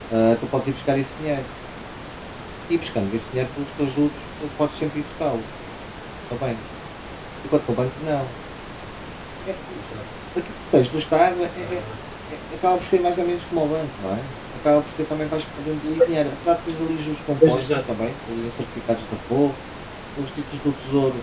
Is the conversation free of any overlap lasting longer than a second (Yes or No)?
Yes